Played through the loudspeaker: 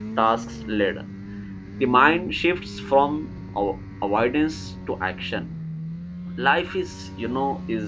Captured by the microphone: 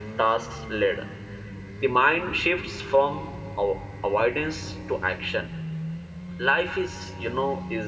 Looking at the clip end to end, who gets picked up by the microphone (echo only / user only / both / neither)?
echo only